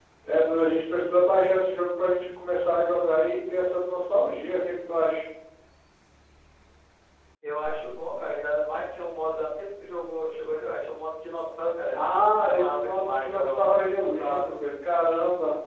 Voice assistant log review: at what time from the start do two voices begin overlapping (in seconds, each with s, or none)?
12.4 s